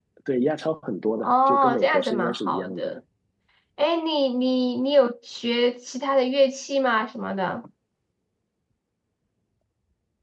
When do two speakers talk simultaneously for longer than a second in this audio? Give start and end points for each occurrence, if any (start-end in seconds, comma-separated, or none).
1.2-3.0